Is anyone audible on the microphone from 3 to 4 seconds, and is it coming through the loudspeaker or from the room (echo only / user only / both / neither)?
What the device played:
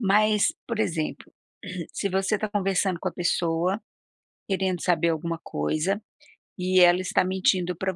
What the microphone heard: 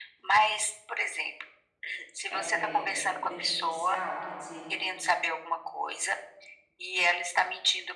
both